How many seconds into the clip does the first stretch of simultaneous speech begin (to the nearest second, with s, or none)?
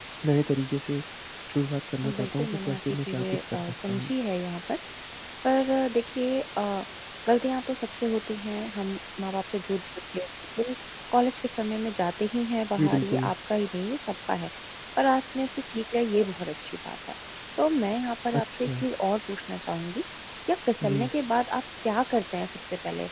2 s